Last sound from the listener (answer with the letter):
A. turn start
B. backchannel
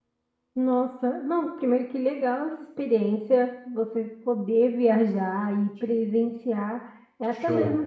B